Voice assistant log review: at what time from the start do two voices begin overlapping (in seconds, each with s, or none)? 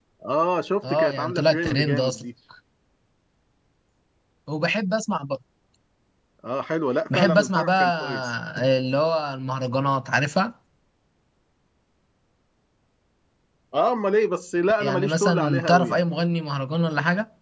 0.8 s